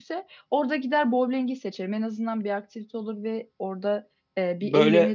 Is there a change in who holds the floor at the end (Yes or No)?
No